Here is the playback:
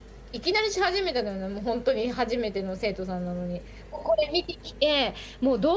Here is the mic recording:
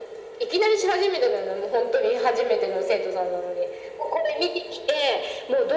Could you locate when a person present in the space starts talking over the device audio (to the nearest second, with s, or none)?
none